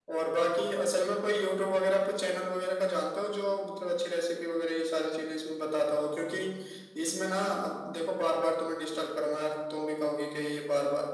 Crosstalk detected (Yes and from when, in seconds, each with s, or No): No